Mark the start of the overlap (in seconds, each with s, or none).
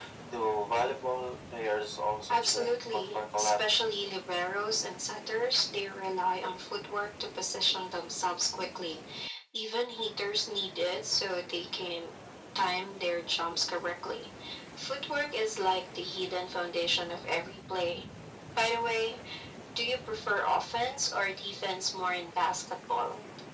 2.3 s